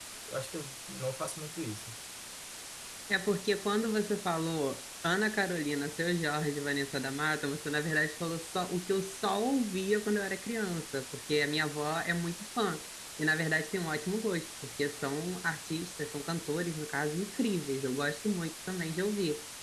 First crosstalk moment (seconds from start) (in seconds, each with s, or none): none